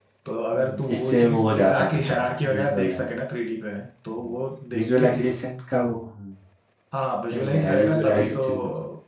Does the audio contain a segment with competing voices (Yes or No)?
Yes